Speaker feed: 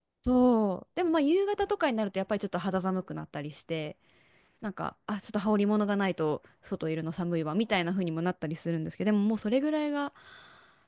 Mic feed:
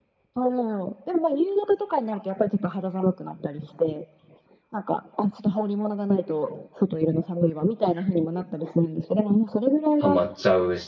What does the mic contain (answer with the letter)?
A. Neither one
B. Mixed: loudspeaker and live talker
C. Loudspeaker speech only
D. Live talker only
B